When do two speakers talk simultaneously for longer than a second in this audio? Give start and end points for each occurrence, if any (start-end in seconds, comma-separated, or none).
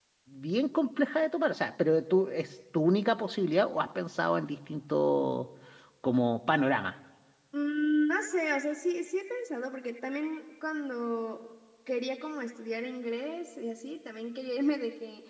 none